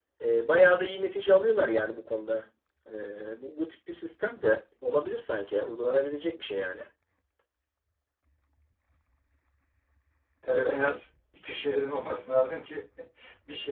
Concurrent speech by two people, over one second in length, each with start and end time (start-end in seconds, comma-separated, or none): none